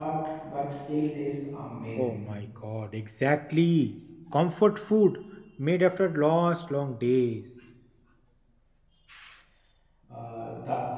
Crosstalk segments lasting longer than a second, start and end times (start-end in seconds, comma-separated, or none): none